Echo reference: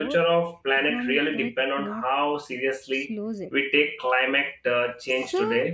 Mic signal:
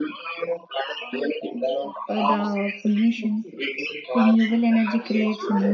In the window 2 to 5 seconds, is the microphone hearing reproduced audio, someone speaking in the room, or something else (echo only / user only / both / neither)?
both